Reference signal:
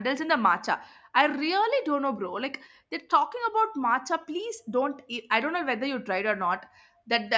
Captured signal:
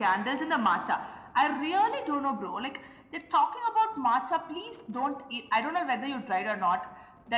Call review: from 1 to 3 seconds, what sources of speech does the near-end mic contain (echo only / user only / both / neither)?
echo only